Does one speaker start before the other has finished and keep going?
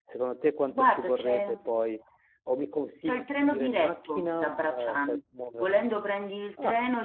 Yes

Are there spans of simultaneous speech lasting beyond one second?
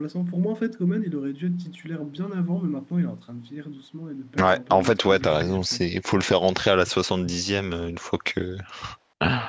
Yes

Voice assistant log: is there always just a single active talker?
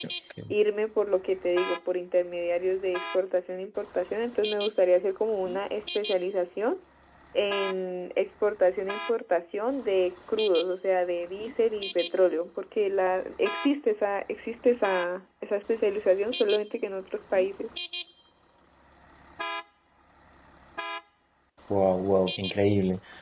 Yes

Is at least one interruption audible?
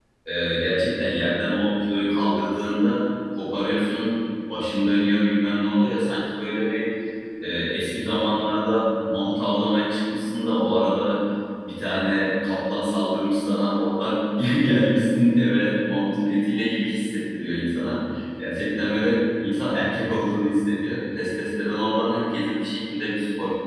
No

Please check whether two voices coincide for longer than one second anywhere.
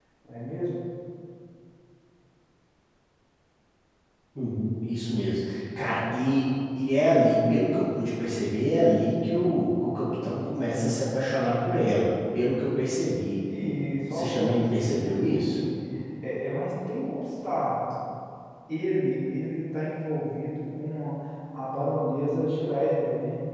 Yes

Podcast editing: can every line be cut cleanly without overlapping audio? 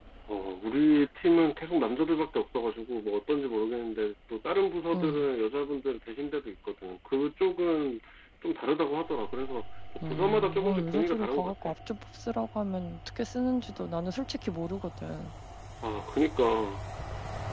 No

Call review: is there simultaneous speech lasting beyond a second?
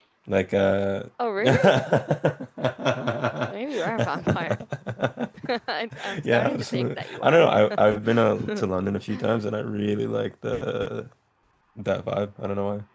Yes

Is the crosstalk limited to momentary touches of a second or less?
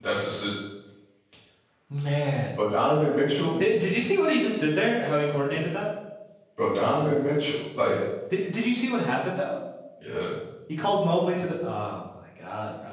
Yes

